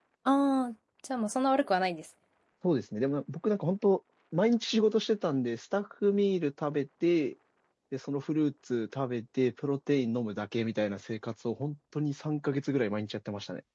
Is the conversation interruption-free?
Yes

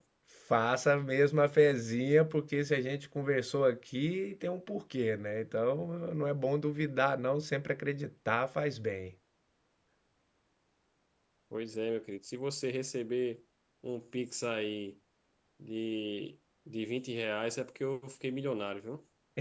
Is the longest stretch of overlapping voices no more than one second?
Yes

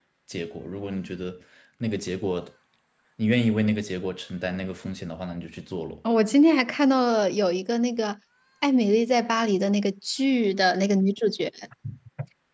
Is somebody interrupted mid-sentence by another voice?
No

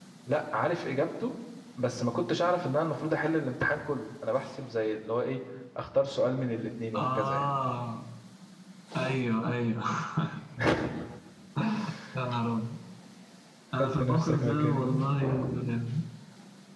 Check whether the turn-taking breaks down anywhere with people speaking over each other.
Yes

